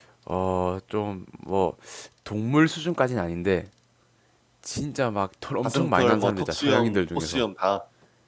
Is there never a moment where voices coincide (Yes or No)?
No